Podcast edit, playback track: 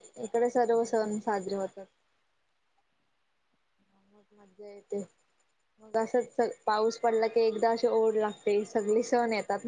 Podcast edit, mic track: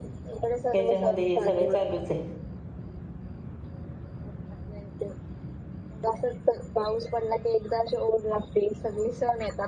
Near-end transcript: याच्यामध्ये हे सगळं चालूच आहे

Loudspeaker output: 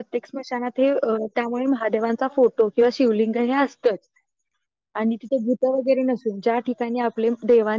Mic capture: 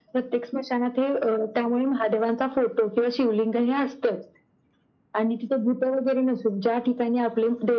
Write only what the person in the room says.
none

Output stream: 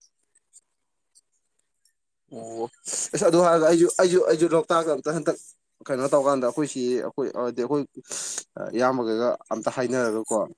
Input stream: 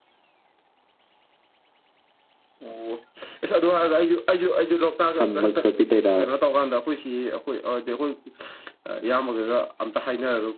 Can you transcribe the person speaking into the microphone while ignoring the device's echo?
ꯁꯝꯕ ꯈꯣꯠꯄꯤ ꯇꯩꯔꯕ

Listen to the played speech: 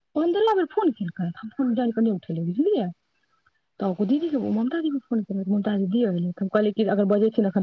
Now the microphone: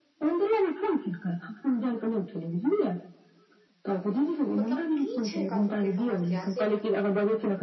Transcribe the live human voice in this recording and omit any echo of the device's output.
मतलब की छै एकरा सबके समस्या से ने

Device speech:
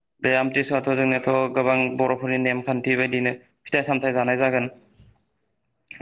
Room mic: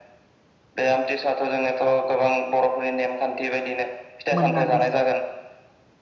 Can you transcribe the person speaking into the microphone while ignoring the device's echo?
मोननानै

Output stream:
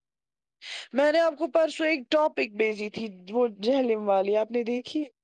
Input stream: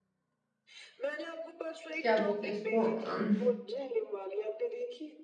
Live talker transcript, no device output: کیا بولتے ہیں اس کو ام

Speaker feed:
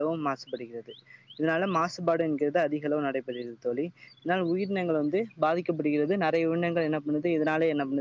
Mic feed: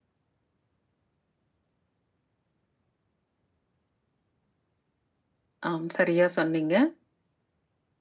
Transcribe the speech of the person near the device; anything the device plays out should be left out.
ஆம் சரியா சொன்னீங்க

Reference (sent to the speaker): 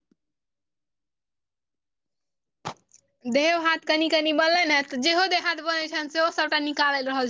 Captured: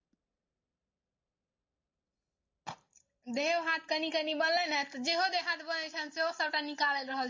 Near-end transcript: none

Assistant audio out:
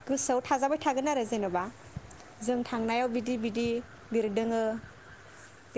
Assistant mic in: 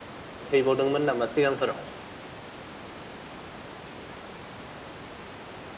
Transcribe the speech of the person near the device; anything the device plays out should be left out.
हैैबावदोंमोन नामा सिगांफोराव?

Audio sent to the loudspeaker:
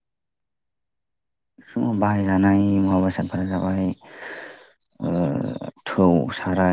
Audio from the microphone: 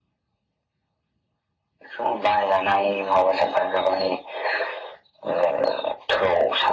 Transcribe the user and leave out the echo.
none

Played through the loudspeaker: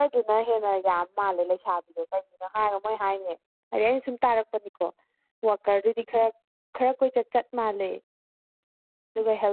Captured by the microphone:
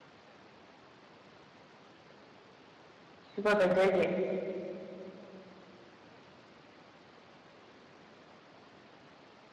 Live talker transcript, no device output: ꯁꯨꯄꯔꯚꯥꯏꯖꯔꯒꯤ

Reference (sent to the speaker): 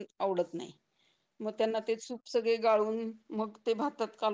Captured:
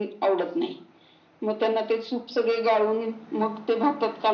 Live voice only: none

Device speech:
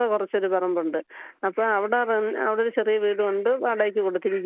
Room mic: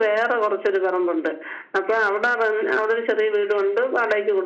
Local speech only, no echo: none

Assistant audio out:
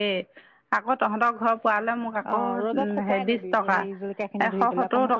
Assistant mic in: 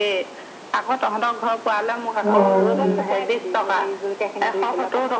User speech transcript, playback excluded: উম,

